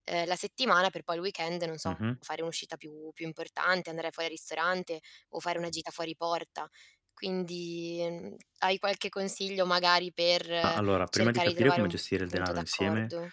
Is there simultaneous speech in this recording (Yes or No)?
Yes